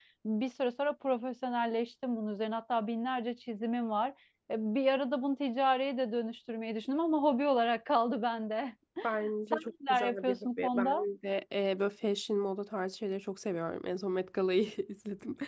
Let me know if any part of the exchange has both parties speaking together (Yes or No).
Yes